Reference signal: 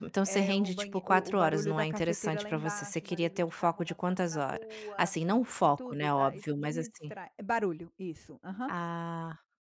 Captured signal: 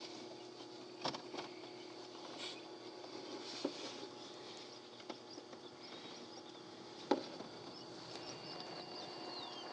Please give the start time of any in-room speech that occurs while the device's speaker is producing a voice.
none

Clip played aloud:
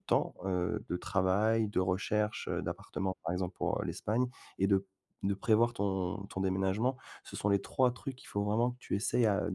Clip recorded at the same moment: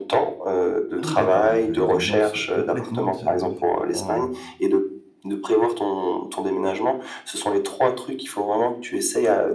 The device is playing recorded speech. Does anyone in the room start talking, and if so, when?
1.0 s

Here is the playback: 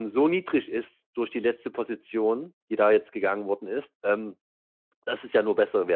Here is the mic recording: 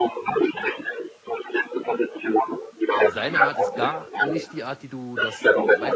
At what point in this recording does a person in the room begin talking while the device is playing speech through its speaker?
3.0 s

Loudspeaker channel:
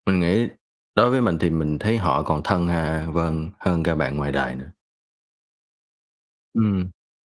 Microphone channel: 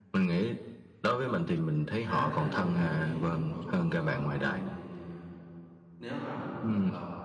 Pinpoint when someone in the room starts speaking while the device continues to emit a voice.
1.9 s

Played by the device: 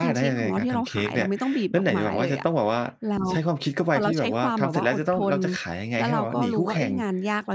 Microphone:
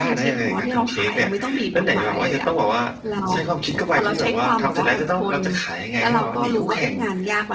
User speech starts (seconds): none

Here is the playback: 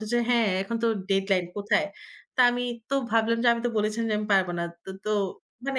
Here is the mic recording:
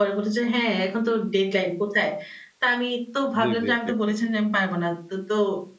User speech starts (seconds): 3.4 s

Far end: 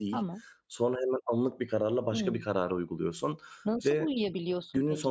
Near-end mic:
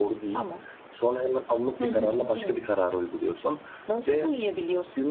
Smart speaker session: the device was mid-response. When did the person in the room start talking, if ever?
1.8 s

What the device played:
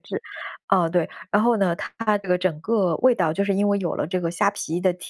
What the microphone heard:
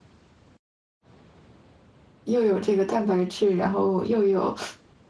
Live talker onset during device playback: 2.2 s

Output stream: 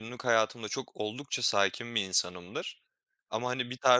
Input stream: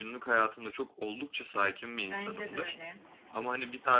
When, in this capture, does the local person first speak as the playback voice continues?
2.1 s

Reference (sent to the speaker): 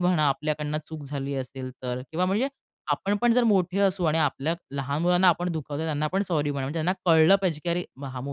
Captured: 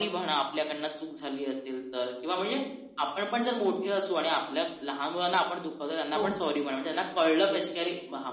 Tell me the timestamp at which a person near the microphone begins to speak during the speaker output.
6.1 s

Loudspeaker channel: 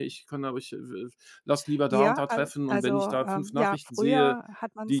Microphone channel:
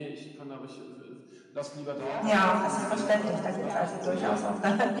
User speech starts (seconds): 2.2 s

